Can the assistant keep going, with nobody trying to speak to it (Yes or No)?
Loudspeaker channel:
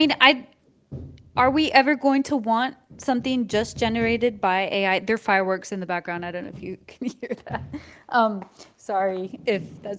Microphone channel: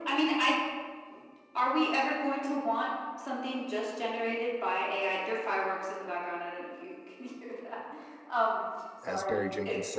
No